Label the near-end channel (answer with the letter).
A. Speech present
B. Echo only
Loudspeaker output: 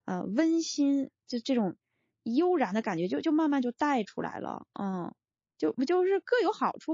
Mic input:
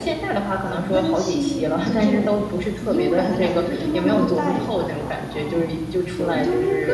A